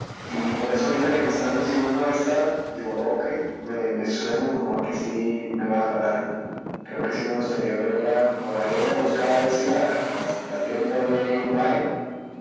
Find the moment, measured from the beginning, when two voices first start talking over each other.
none

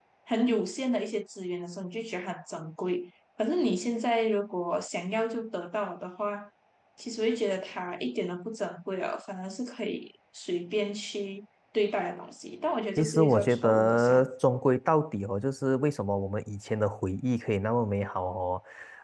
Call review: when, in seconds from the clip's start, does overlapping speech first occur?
13 s

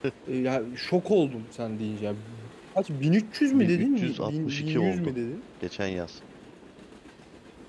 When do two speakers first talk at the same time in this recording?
4 s

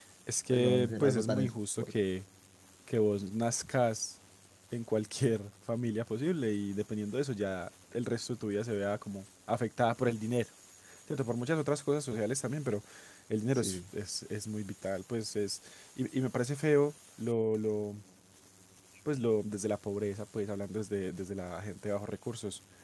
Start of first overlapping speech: 1 s

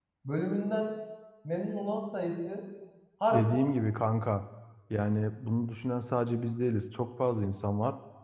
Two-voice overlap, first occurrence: none

